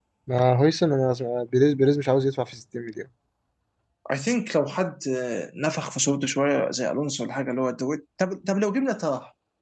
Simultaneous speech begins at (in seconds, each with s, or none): none